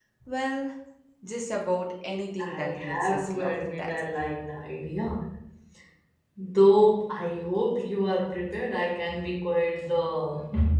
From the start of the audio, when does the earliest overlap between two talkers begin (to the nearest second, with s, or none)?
2 s